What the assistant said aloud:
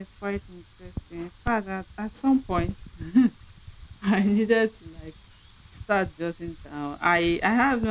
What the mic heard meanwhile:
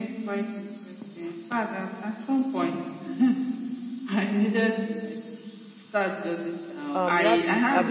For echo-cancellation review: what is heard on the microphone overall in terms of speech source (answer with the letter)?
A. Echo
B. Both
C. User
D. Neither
B